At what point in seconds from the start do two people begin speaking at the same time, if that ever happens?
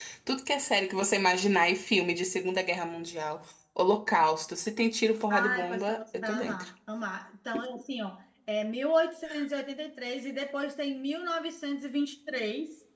5.3 s

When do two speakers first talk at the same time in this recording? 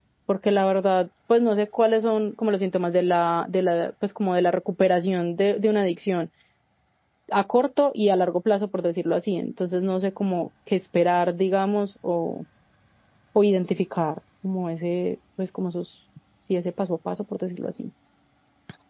none

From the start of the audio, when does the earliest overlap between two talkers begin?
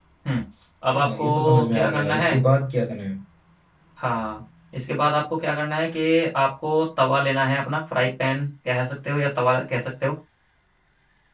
0.9 s

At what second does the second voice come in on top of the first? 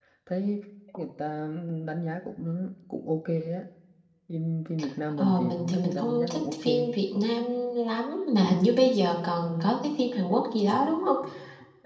5.1 s

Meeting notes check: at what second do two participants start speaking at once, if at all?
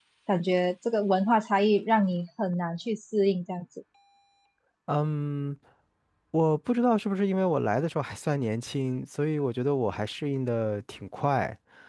none

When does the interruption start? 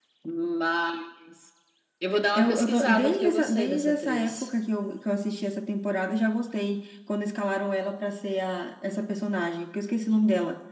2.3 s

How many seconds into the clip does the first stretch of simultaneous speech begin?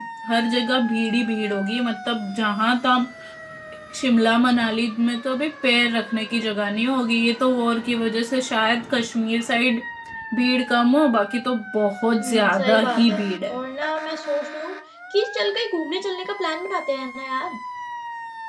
12.2 s

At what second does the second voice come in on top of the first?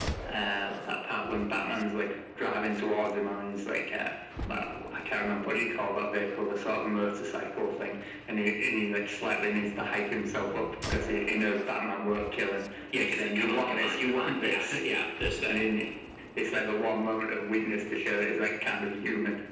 12.9 s

